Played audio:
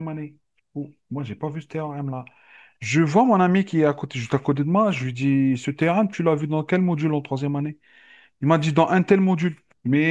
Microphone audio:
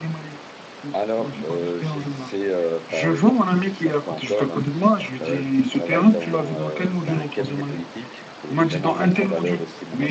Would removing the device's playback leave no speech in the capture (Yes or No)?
No